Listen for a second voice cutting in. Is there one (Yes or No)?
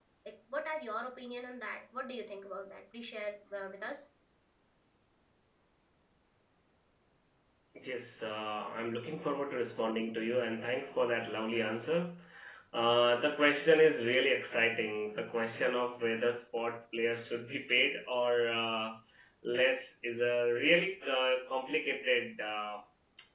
No